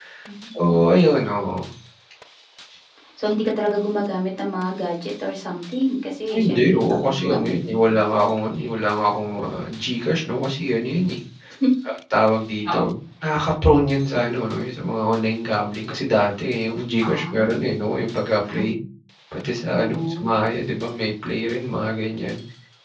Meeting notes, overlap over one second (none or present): present